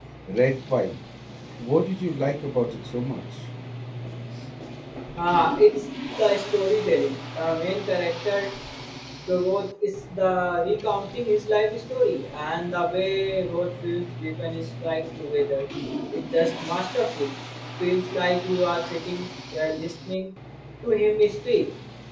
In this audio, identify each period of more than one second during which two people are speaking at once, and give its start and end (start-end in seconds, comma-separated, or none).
none